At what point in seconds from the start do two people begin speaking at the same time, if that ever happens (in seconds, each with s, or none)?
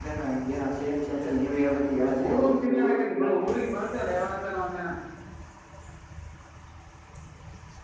2.1 s